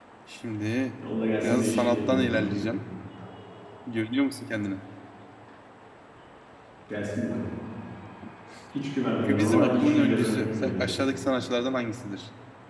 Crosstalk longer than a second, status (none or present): present